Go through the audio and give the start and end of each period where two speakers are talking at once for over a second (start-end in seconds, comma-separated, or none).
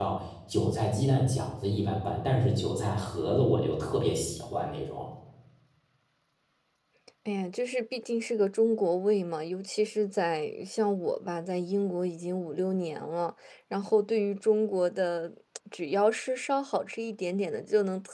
none